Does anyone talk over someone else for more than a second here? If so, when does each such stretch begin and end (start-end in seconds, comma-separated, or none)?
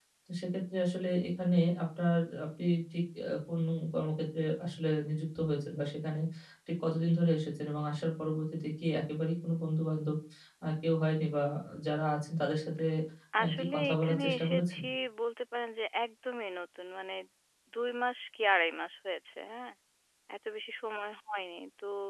13.4-14.8